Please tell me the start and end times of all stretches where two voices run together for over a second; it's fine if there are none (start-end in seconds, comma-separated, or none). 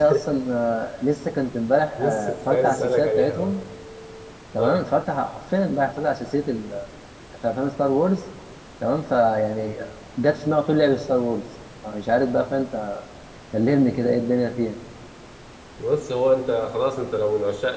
2.0-3.5